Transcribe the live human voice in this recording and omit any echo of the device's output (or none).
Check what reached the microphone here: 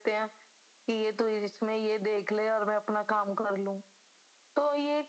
none